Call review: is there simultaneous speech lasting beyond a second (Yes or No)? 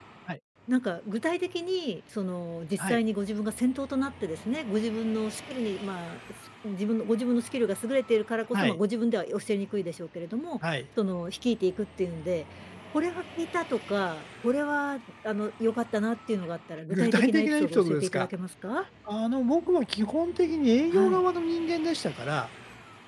Yes